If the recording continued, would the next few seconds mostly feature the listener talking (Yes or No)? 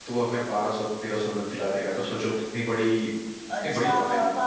Yes